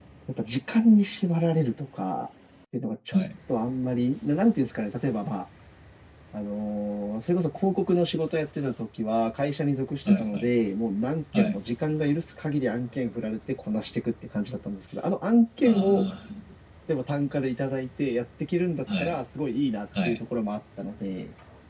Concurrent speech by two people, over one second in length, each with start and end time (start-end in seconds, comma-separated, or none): none